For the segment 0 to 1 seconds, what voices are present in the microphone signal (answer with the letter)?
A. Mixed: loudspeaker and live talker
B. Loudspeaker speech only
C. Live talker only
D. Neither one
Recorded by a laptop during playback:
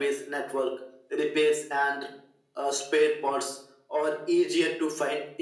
B